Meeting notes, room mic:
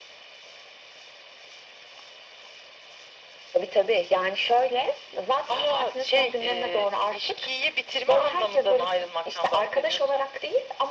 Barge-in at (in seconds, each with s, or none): none